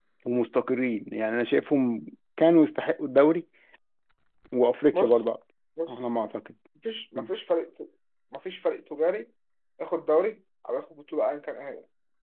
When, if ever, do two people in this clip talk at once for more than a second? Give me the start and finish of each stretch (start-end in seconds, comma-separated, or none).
none